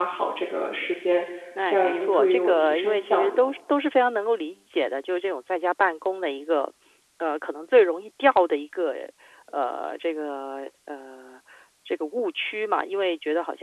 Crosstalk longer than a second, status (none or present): present